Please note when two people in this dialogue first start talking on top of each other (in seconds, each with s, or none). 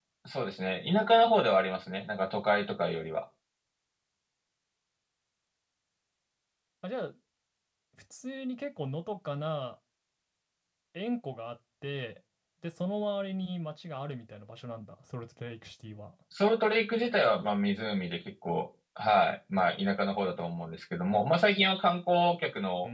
none